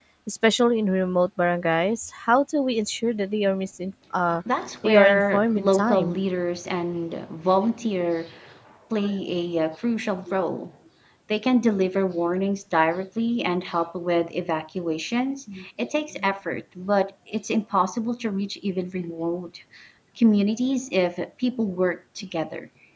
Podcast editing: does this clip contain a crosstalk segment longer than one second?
Yes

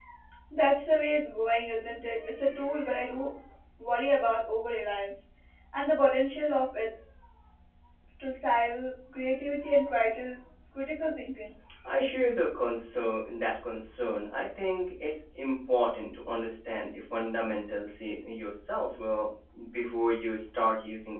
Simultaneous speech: No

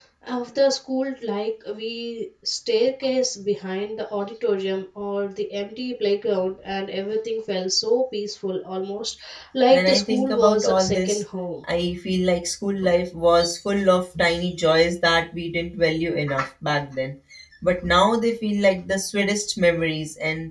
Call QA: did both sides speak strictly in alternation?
No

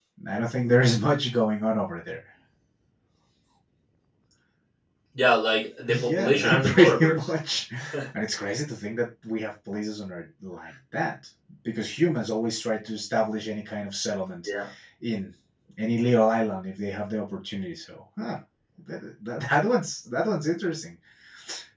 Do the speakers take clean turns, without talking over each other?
No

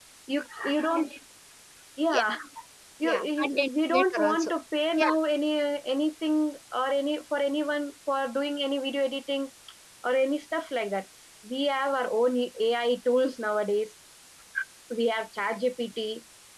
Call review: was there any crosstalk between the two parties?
Yes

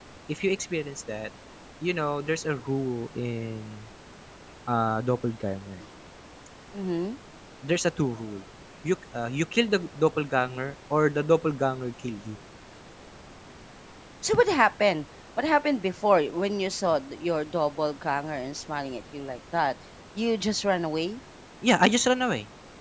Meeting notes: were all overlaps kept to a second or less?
Yes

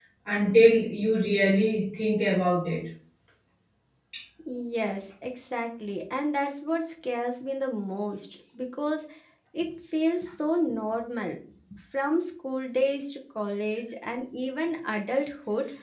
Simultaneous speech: No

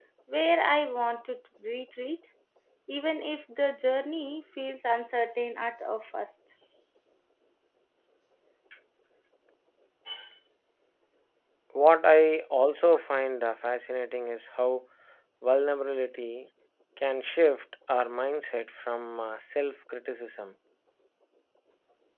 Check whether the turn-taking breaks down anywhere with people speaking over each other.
No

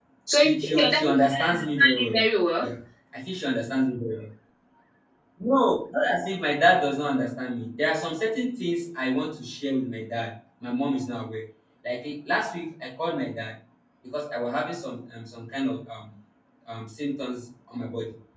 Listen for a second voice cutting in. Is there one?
Yes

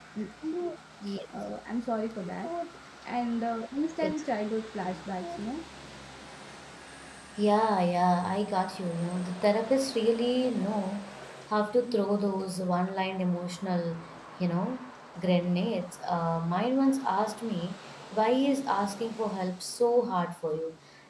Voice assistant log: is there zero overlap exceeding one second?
Yes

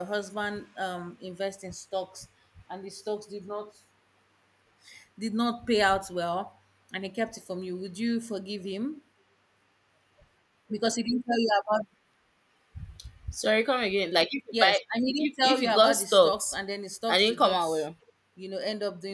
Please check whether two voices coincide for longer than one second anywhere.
Yes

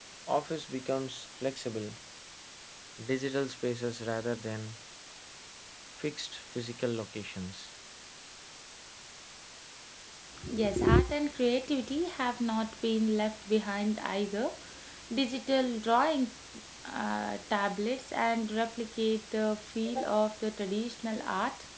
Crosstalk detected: No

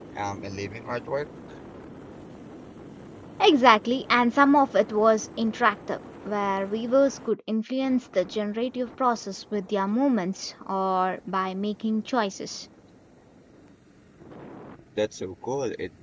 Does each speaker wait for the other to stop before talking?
Yes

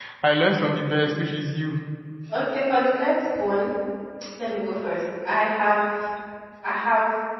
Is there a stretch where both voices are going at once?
No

